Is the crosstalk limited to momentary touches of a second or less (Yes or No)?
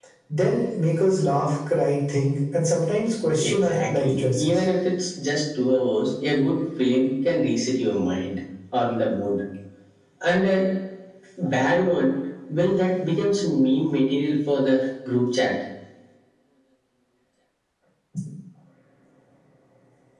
No